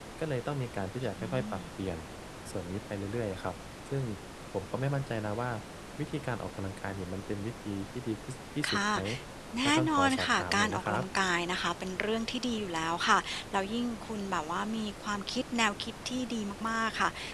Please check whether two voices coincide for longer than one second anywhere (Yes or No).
Yes